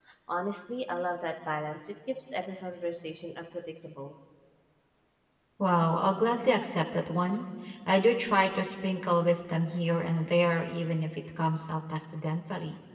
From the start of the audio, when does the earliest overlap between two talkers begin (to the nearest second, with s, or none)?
none